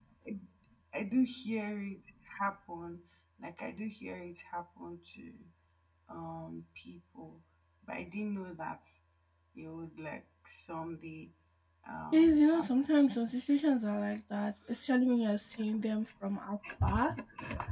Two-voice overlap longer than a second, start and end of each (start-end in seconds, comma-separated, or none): 12.1-13.6